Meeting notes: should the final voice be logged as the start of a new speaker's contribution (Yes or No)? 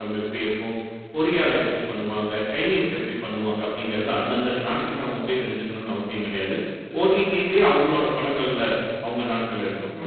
Yes